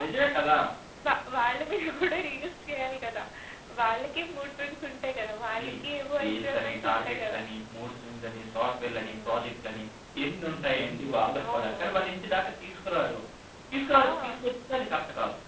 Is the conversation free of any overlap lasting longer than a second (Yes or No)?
No